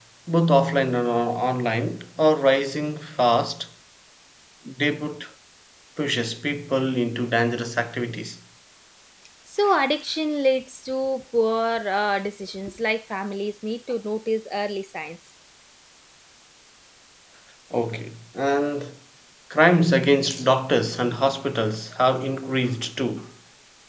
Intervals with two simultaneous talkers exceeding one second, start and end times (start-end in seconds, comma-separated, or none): none